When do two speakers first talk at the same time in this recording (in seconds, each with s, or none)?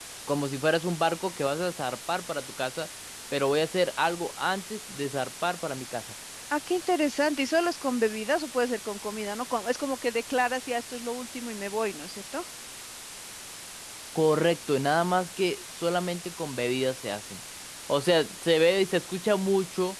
none